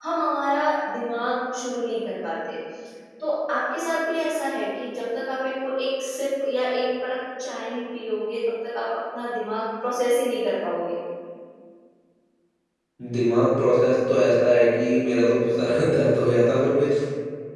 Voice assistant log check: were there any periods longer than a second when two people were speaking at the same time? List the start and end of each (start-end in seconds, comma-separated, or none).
none